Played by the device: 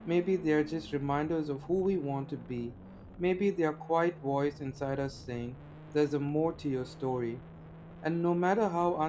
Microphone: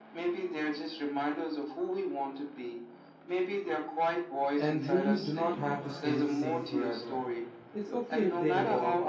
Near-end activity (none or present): present